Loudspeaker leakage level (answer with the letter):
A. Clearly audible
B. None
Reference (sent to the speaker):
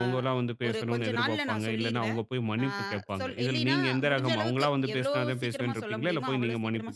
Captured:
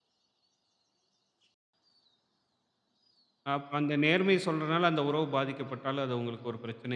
B